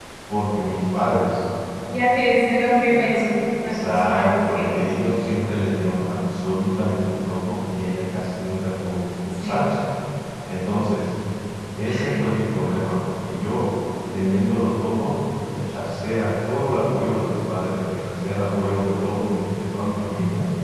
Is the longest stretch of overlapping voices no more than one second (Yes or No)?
No